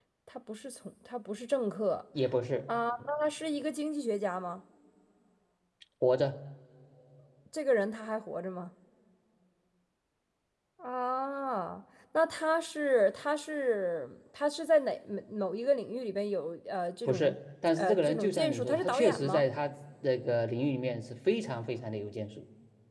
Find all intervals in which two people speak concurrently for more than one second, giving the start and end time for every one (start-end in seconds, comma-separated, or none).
17.8-19.4